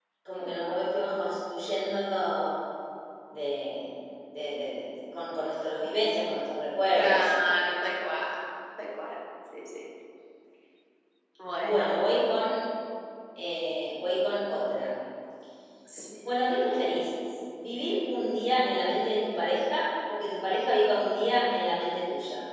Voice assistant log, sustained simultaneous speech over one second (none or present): none